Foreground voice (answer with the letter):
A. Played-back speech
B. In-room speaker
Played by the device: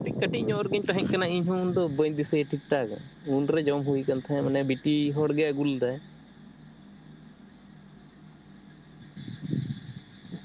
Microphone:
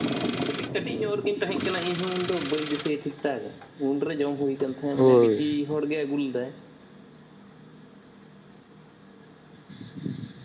B